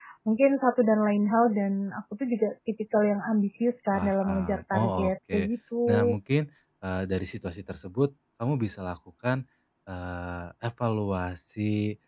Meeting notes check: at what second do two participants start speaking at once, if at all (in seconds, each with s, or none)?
3.9 s